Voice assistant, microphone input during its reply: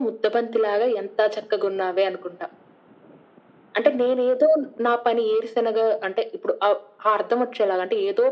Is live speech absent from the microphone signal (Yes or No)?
Yes